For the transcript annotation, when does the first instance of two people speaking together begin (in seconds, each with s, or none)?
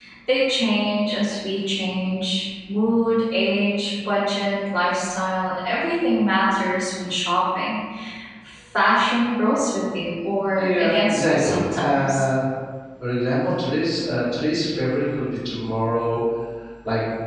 10.6 s